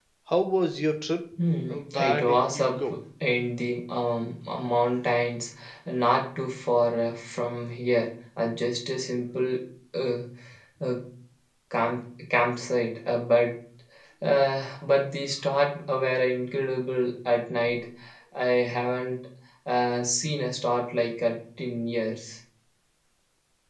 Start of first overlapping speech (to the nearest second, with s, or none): 2 s